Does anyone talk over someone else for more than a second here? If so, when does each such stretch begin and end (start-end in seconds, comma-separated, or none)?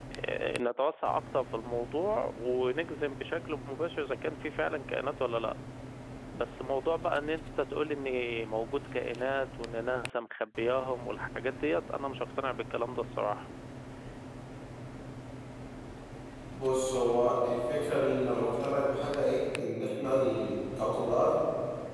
none